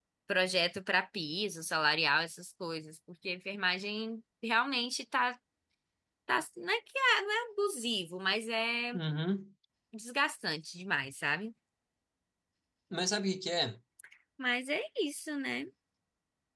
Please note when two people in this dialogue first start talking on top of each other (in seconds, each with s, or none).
none